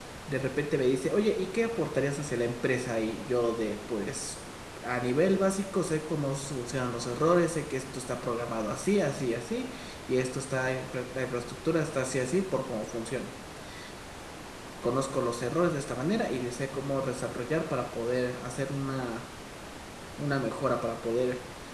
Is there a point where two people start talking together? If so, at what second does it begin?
none

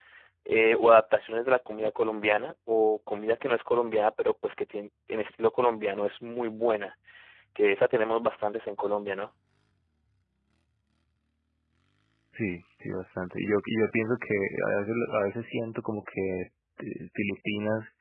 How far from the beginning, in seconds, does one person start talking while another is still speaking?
none

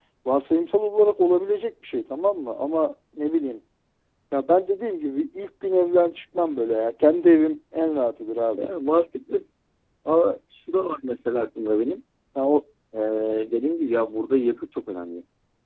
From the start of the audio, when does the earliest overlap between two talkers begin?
none

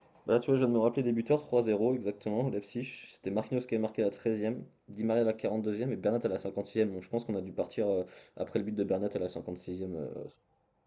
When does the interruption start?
none

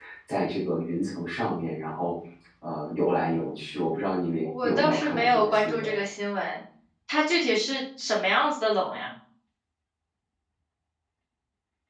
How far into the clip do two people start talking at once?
4.5 s

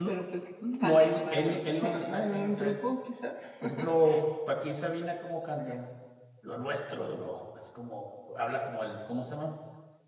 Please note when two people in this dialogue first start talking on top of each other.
0.8 s

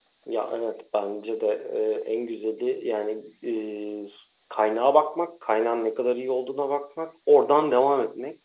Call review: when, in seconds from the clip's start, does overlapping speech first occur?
none

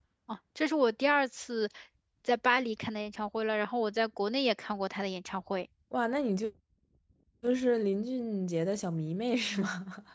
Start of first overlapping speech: none

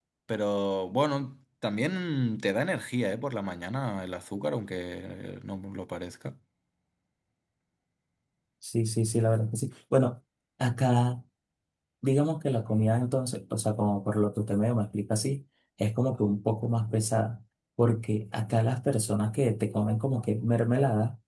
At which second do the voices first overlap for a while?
none

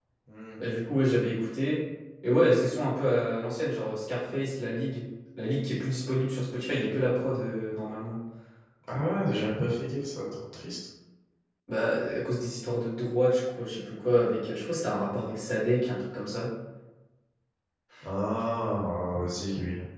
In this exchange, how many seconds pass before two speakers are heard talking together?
none

